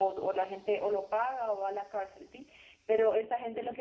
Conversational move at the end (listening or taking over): listening